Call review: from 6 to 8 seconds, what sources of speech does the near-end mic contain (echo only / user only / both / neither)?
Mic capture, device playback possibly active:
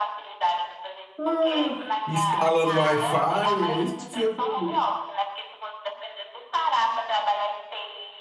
echo only